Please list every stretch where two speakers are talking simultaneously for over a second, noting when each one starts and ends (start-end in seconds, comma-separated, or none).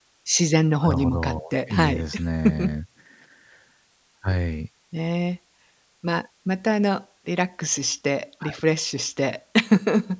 0.8-2.0